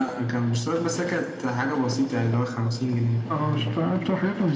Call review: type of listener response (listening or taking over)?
taking over